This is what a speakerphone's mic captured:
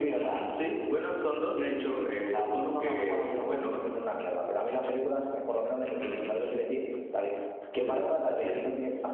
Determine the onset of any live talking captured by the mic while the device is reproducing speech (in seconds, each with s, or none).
none